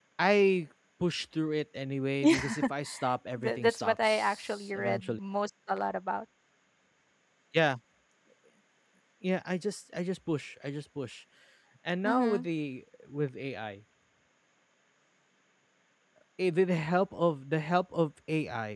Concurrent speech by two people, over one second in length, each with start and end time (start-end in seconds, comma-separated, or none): 3.4-5.2